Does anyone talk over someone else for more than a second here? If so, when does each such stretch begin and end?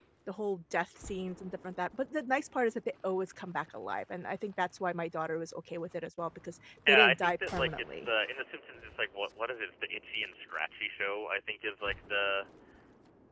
6.9-8.1

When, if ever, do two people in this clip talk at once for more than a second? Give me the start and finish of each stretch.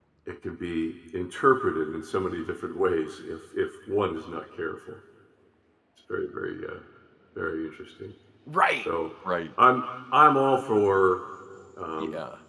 none

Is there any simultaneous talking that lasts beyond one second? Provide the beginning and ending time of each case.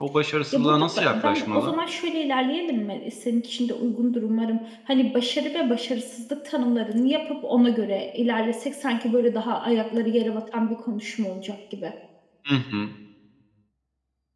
0.5-1.7

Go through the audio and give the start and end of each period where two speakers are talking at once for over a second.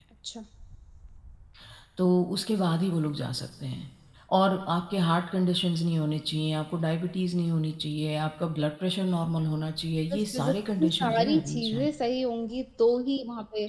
10.1-11.9

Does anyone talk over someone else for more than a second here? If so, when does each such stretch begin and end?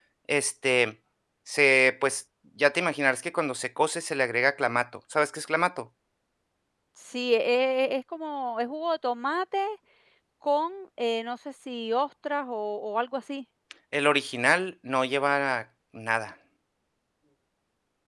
none

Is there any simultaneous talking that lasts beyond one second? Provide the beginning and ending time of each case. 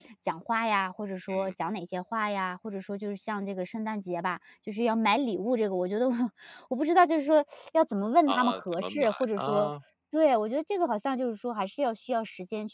8.3-9.7

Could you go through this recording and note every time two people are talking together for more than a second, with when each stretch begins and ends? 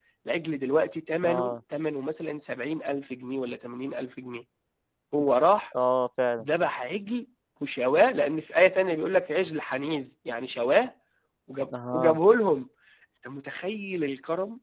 none

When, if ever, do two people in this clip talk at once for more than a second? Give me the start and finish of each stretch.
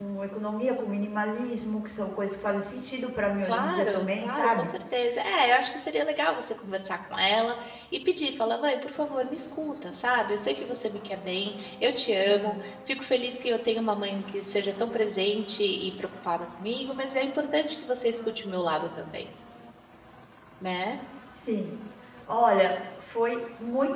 3.4-4.7

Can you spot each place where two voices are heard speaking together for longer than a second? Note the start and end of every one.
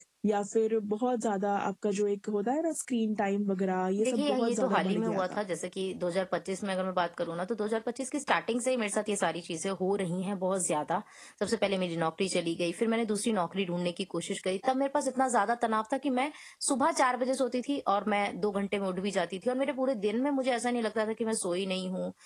4.0-5.4

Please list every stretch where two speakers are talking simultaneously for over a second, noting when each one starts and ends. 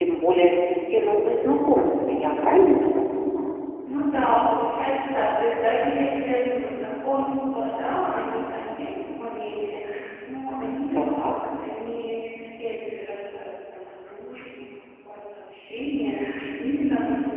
none

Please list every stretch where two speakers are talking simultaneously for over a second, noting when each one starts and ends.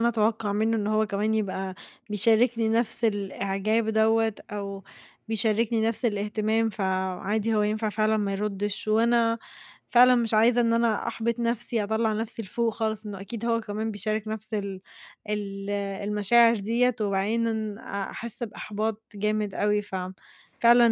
none

